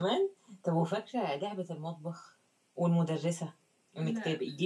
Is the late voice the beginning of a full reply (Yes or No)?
No